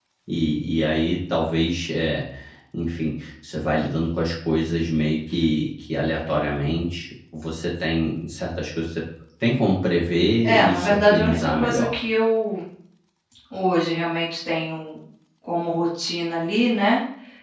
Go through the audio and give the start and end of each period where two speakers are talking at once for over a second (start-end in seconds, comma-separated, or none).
10.4-12.0